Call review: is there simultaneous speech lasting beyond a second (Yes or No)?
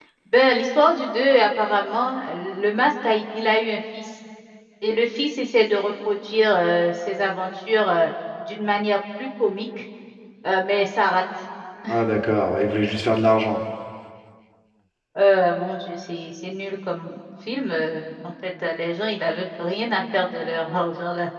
No